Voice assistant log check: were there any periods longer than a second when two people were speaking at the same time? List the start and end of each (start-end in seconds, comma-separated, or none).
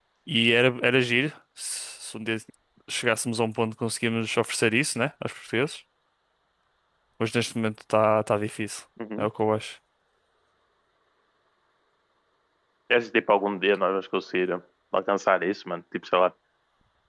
none